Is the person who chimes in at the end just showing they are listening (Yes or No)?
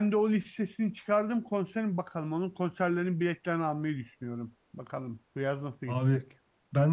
No